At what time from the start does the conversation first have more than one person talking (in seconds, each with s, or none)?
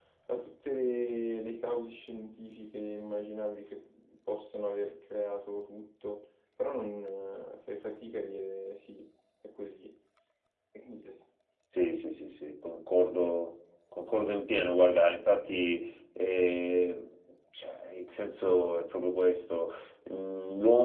none